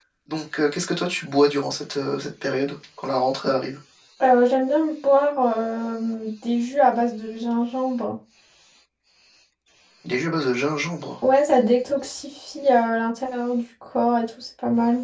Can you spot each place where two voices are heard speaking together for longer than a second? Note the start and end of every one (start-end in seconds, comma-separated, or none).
none